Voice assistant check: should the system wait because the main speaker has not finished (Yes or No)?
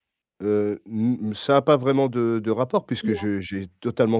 Yes